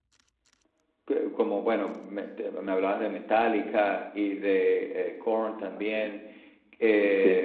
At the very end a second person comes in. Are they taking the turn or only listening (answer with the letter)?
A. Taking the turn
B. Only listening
A